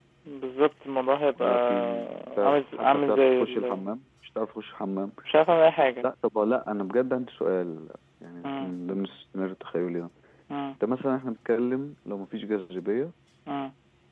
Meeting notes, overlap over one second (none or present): present